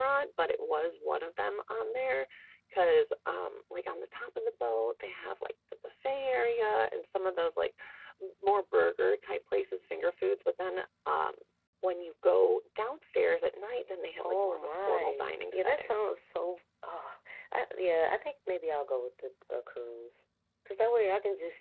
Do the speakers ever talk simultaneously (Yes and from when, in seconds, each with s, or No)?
Yes, from 14.2 s